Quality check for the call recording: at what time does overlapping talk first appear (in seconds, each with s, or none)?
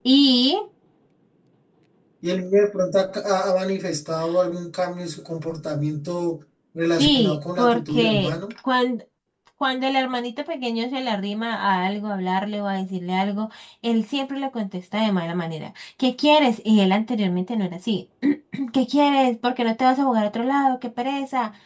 7.0 s